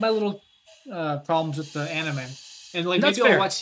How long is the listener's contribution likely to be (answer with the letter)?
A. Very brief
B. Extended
A